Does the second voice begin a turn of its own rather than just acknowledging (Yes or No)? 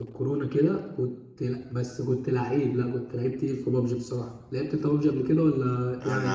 Yes